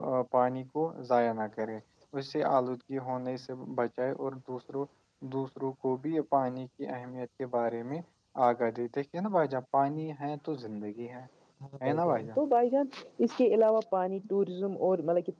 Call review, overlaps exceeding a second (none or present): none